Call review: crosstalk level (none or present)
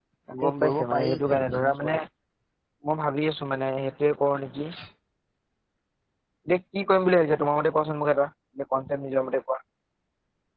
present